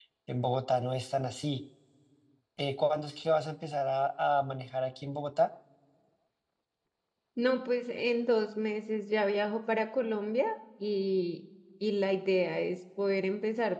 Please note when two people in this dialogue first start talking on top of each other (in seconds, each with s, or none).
none